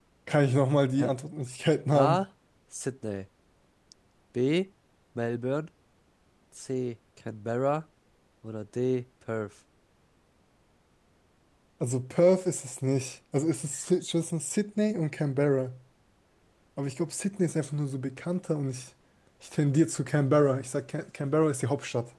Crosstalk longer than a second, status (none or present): none